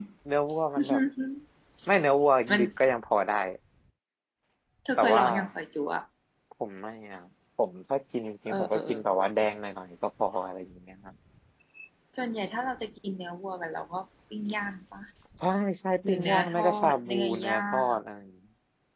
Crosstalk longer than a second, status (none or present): present